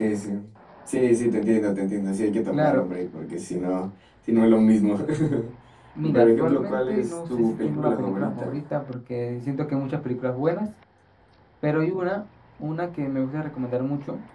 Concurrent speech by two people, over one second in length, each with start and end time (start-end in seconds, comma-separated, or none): 6.0-8.5